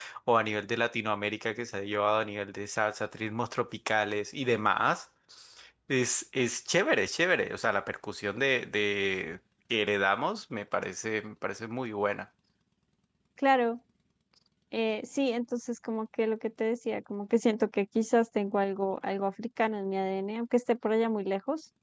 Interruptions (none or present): none